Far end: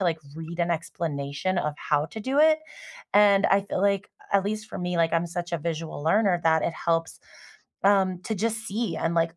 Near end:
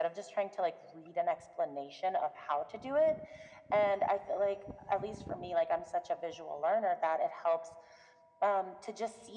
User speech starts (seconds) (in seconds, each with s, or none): none